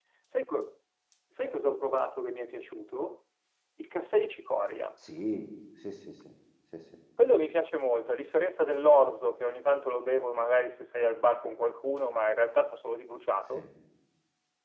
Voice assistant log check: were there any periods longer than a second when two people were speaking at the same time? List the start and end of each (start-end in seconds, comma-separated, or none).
none